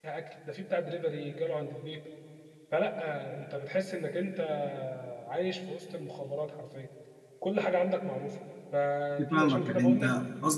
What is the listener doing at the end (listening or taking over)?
taking over